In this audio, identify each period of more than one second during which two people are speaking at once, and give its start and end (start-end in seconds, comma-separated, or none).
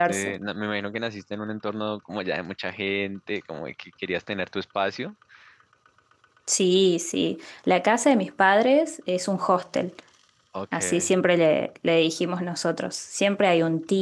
none